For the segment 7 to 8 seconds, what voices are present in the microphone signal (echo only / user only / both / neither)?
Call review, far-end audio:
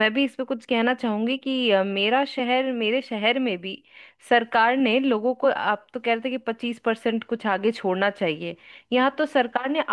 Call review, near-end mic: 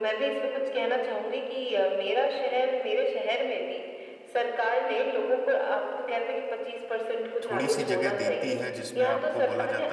both